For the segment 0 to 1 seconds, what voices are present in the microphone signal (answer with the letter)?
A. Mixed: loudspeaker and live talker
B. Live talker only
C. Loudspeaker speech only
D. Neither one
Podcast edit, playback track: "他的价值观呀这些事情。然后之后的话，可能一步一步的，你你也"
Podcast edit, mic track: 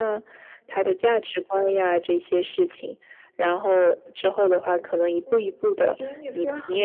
C